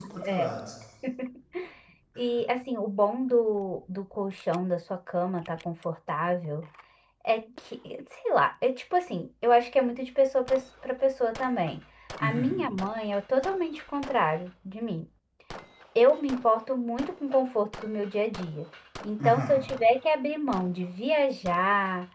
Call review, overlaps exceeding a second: none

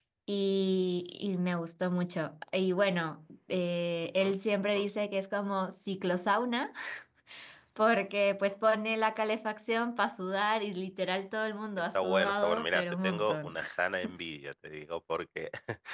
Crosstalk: present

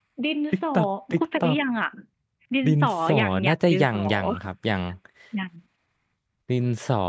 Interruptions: present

